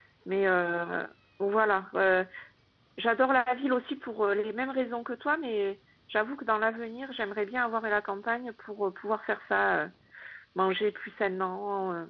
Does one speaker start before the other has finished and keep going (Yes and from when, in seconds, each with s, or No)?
No